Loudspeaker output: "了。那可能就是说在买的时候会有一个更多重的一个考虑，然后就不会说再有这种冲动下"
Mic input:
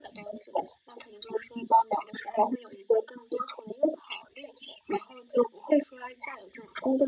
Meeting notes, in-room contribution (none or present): none